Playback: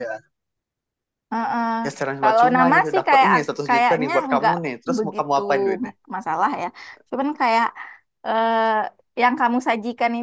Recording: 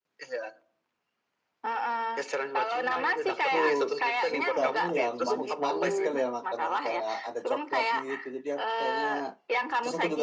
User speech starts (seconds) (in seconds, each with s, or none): 3.3 s